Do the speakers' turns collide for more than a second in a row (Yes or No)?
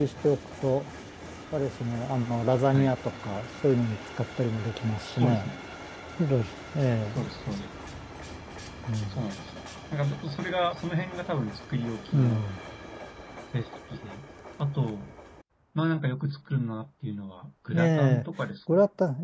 No